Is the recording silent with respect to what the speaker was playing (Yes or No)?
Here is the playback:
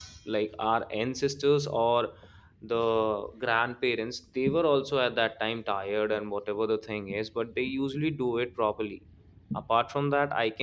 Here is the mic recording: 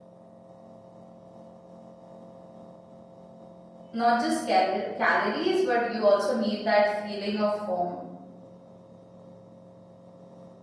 Yes